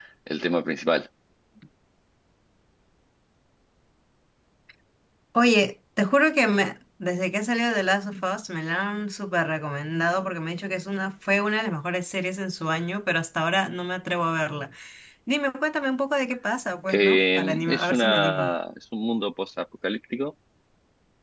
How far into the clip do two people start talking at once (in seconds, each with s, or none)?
16.9 s